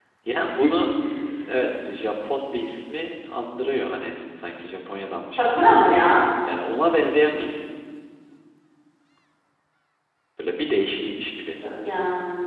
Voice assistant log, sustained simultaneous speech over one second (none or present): none